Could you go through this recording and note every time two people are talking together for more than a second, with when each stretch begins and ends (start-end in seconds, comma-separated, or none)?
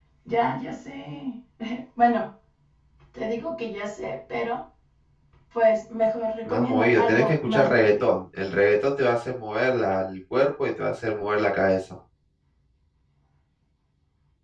6.5-7.9